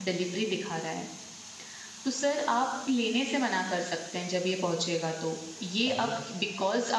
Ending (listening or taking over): listening